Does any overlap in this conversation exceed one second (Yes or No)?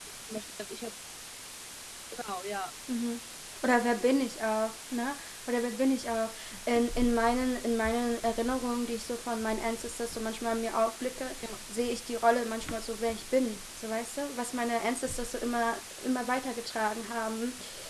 No